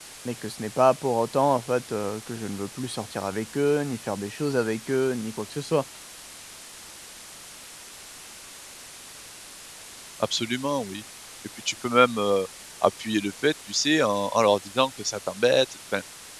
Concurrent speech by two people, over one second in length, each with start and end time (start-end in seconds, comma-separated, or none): none